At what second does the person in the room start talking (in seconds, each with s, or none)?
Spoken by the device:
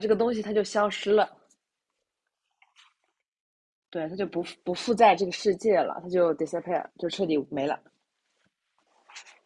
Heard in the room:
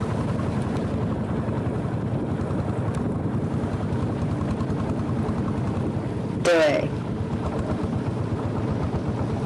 6.4 s